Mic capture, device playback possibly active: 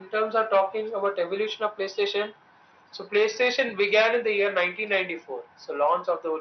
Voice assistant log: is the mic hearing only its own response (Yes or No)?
Yes